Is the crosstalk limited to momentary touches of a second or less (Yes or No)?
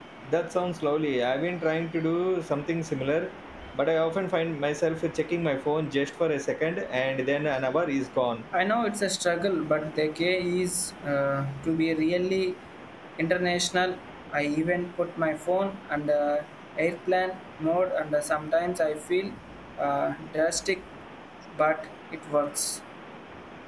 Yes